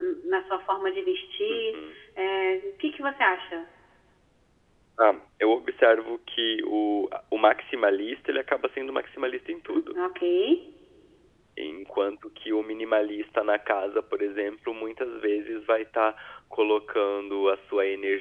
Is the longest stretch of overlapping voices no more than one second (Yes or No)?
Yes